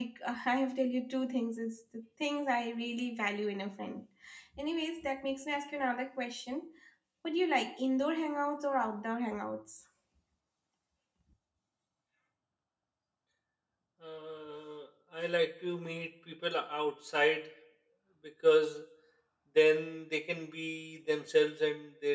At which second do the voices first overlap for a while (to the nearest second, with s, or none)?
none